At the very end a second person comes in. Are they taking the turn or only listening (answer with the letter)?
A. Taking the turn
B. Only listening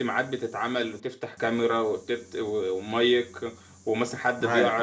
B